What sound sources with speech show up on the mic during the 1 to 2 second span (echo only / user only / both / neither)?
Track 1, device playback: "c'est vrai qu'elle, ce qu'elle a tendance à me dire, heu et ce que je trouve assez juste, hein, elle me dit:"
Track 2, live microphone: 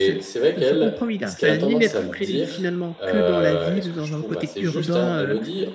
both